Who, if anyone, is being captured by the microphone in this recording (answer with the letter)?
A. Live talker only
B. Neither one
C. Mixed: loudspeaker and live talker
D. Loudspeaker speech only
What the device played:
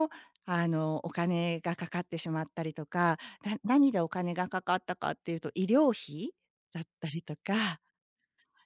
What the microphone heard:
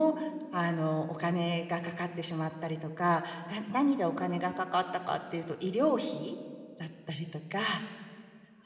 D